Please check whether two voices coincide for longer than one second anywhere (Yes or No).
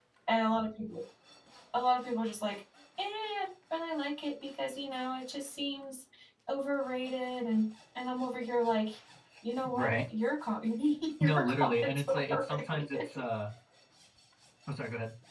Yes